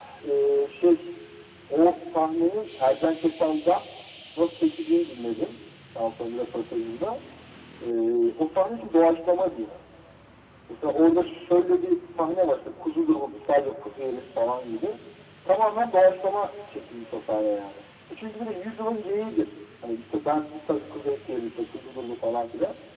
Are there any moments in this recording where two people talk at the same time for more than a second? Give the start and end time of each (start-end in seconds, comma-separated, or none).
none